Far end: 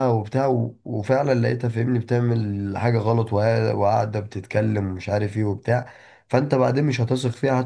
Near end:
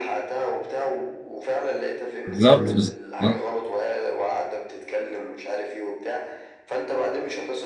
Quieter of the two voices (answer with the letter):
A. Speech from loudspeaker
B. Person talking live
A